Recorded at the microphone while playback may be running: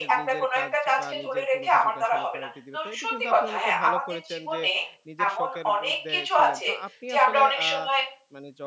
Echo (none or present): present